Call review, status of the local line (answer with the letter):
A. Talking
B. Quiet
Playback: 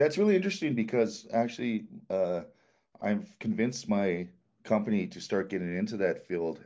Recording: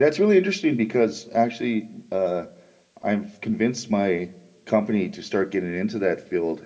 B